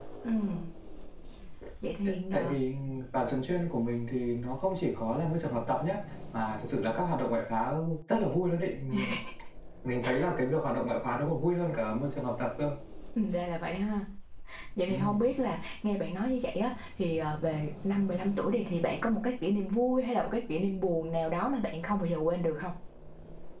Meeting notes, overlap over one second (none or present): none